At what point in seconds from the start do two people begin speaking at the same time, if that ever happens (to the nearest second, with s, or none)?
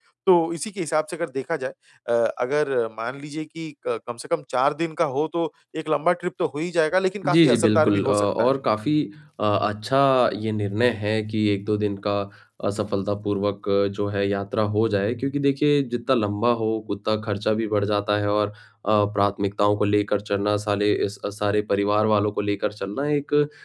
7 s